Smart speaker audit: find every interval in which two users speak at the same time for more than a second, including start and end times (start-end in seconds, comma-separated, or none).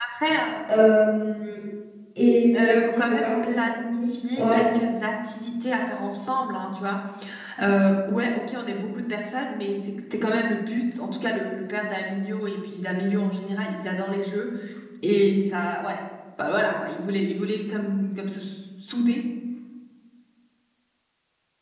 2.5-4.7